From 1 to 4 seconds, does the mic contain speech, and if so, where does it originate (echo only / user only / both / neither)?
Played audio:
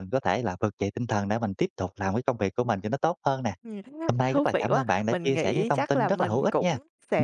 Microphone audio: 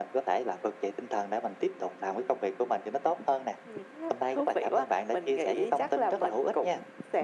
echo only